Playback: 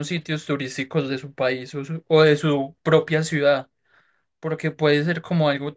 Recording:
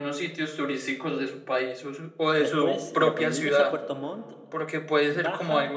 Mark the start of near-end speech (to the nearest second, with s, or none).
2 s